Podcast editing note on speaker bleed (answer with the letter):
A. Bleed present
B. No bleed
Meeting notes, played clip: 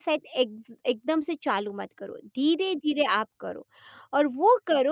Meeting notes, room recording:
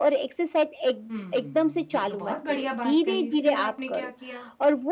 A